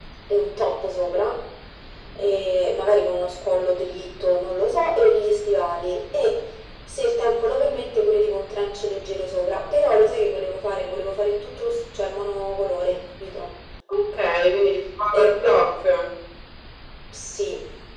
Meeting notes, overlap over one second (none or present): none